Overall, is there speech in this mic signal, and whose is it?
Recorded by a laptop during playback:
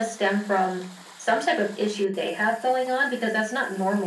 echo only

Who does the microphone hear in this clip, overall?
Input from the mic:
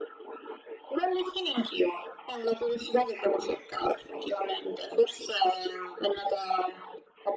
echo only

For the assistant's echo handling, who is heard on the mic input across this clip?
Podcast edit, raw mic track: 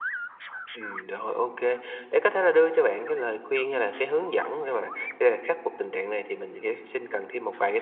echo only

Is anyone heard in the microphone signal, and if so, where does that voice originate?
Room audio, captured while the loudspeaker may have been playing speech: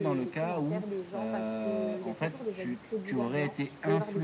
both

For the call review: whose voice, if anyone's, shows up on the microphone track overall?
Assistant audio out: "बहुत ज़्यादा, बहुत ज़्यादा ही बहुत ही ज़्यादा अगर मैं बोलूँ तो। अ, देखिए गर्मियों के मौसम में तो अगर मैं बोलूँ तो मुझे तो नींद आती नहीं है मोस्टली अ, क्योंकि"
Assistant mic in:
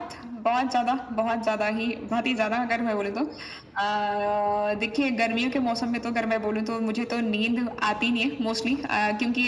echo only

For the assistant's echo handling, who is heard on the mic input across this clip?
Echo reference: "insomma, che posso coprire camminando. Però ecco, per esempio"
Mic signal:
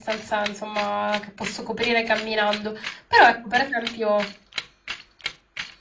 echo only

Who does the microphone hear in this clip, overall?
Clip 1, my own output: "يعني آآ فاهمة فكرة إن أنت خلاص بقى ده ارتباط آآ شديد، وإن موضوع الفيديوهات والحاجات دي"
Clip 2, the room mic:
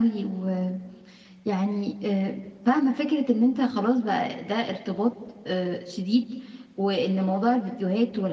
echo only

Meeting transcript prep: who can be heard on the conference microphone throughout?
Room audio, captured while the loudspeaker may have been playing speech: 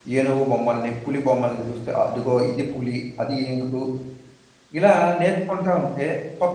user only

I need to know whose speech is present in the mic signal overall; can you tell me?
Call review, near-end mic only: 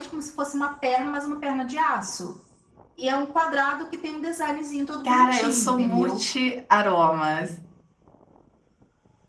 both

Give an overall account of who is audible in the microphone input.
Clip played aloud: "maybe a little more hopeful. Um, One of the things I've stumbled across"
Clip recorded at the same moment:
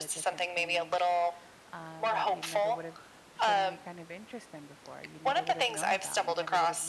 both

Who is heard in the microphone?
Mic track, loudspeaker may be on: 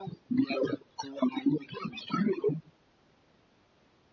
echo only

